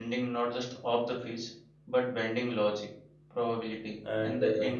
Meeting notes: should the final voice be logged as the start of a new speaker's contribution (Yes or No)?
No